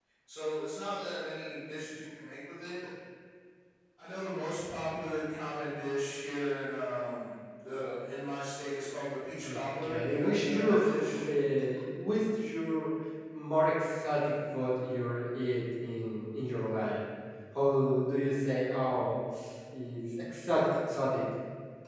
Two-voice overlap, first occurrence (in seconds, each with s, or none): 9.4 s